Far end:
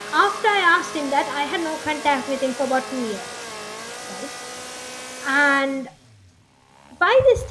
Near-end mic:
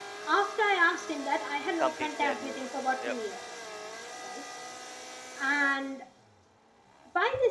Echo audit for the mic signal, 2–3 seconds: both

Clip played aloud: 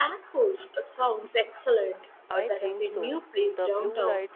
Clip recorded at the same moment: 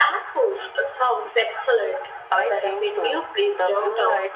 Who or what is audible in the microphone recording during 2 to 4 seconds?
echo only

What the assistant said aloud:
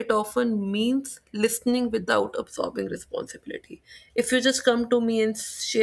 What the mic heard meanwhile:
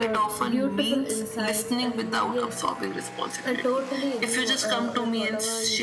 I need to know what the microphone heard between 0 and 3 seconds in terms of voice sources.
both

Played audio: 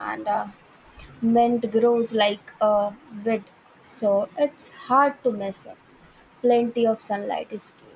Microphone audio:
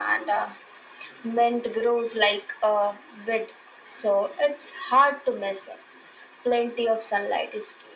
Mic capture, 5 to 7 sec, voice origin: echo only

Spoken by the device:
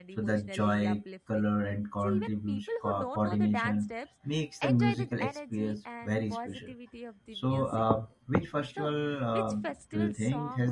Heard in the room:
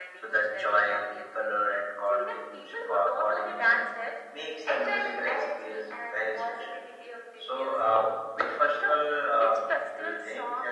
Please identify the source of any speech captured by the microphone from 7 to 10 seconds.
echo only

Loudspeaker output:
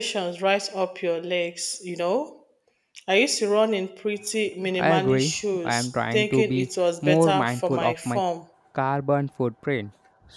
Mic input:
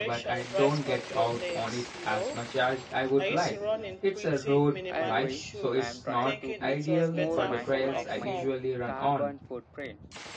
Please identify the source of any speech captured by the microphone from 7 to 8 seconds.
both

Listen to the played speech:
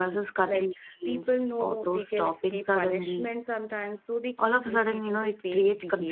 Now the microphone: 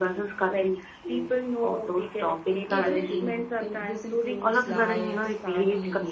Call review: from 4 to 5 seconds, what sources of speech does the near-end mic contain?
both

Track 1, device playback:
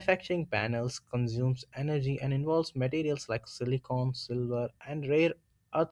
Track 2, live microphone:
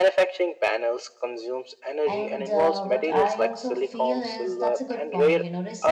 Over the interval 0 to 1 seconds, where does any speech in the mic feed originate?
echo only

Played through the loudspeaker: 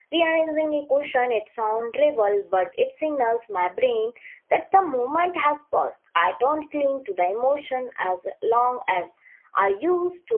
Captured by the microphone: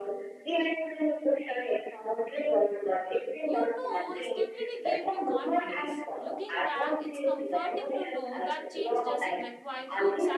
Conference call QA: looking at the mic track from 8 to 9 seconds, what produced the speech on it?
both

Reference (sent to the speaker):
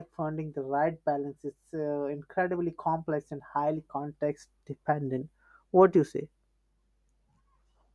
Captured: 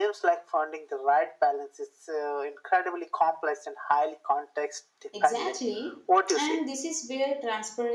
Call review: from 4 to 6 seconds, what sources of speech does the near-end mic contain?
both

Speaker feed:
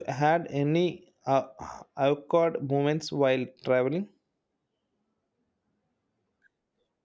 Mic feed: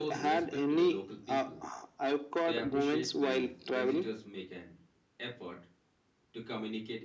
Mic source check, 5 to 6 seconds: user only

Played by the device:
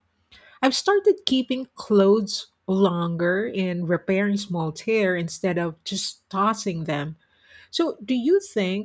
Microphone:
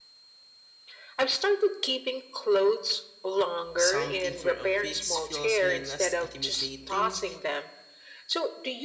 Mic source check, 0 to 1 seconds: neither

